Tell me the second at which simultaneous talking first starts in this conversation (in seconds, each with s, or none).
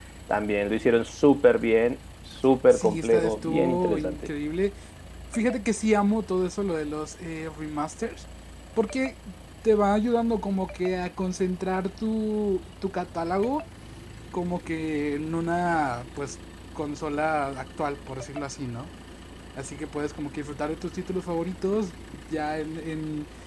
2.7 s